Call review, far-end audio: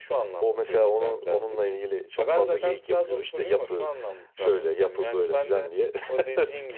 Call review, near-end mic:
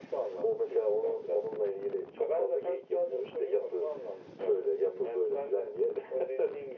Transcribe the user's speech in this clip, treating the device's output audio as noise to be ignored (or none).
none